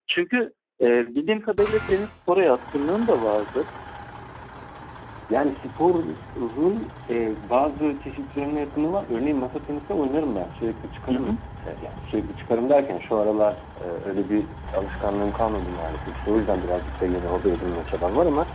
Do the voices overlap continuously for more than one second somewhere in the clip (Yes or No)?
No